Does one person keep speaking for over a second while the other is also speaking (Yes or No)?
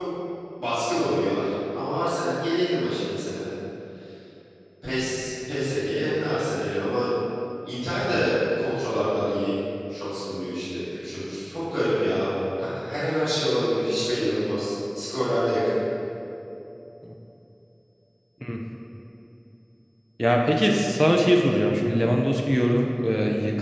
No